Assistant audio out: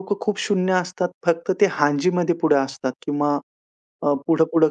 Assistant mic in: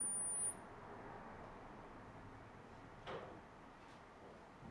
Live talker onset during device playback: none

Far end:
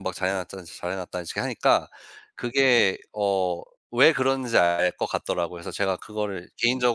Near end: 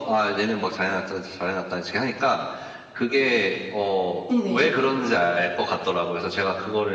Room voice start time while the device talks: 4 s

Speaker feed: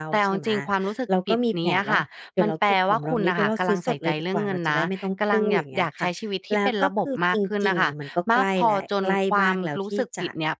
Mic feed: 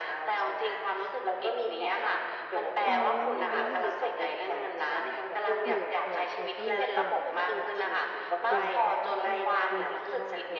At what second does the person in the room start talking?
3 s

